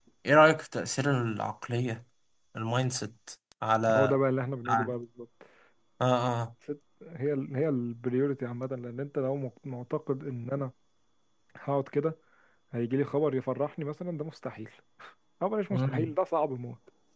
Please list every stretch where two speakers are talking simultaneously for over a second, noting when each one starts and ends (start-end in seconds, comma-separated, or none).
none